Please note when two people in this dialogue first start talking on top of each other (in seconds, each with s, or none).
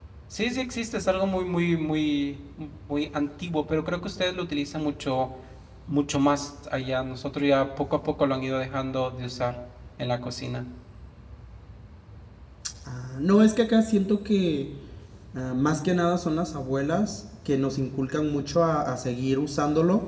none